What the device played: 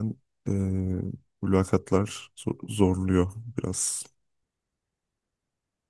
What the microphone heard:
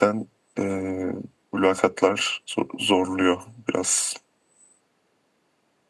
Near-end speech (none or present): none